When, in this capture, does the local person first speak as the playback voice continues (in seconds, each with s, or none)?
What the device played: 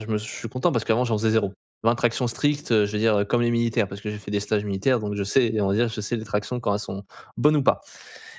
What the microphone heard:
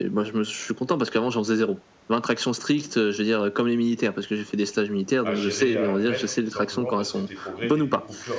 5.2 s